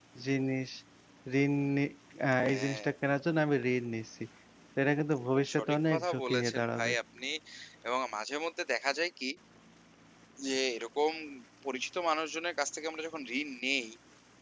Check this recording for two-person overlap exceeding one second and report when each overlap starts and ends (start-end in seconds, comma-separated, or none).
5.3-6.9